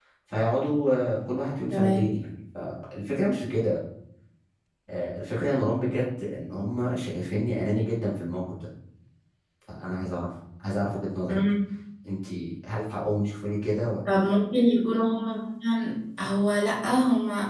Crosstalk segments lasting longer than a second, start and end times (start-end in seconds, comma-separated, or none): none